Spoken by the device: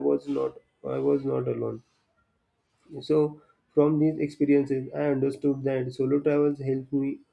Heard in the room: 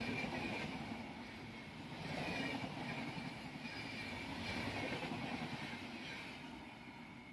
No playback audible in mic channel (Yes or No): Yes